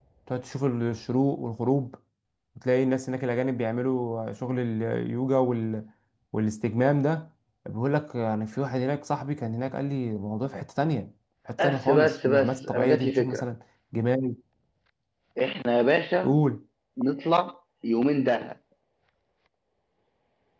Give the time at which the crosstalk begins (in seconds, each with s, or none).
11.6 s